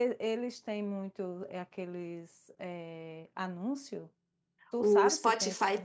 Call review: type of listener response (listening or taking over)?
taking over